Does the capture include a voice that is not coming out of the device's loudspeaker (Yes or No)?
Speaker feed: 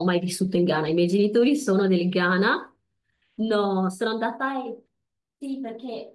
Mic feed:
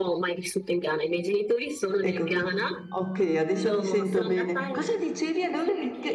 Yes